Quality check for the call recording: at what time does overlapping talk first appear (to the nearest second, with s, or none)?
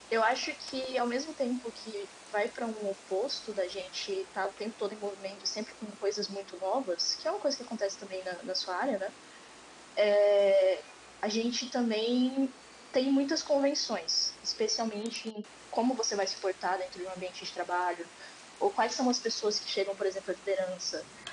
none